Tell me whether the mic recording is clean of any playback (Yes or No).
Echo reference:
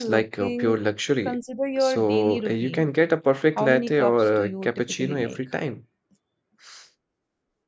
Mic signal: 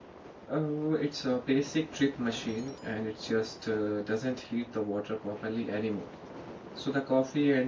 Yes